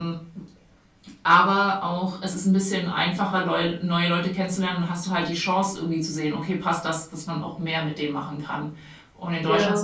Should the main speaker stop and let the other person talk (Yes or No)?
No